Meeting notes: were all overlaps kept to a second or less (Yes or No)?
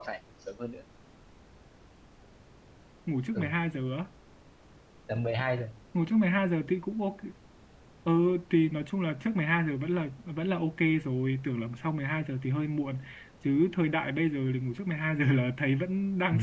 Yes